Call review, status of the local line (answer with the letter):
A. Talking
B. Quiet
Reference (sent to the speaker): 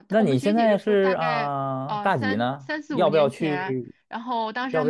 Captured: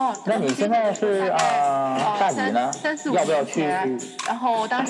B